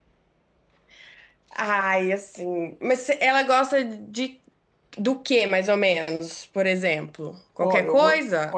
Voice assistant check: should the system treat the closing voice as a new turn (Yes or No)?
Yes